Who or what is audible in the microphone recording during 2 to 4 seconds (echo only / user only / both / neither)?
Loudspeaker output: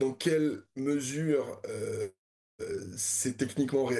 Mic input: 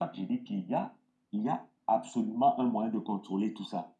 user only